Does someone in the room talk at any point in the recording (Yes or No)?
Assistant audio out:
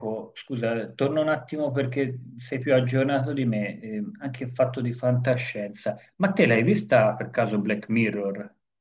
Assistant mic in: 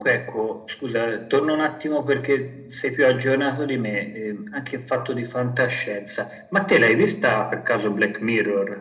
No